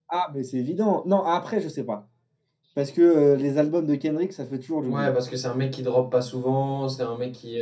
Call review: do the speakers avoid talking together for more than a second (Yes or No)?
Yes